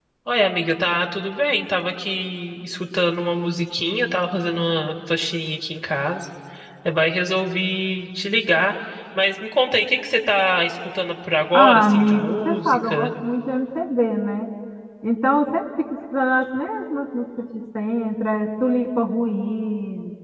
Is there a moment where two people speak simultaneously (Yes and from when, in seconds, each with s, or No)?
Yes, from 11.5 s